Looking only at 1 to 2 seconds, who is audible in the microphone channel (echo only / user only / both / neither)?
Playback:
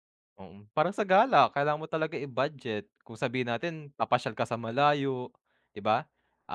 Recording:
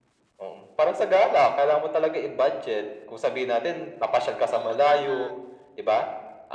echo only